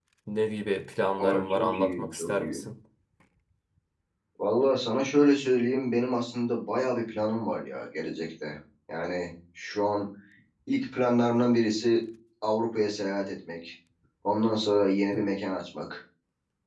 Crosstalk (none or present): present